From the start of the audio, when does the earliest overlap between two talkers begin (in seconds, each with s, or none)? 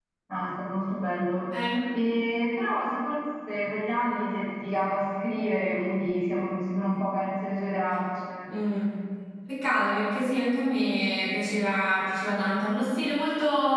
none